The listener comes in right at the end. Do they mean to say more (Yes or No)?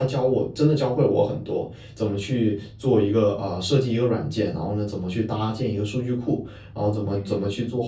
No